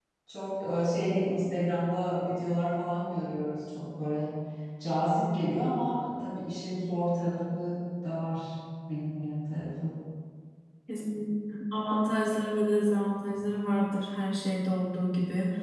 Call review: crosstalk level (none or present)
none